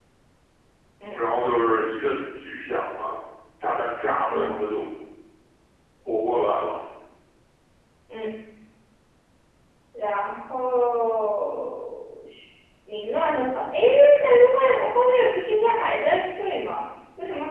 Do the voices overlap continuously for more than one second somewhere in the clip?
No

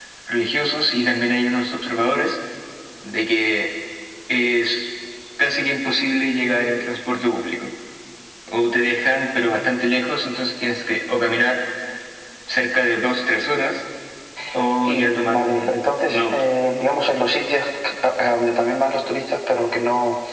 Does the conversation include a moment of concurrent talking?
Yes, from 14.8 s

